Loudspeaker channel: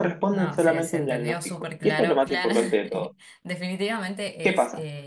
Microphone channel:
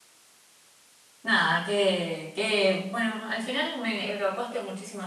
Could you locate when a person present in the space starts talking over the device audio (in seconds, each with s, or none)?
1.2 s